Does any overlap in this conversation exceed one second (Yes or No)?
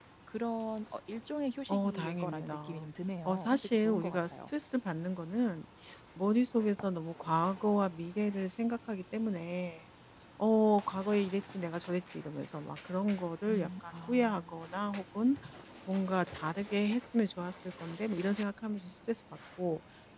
Yes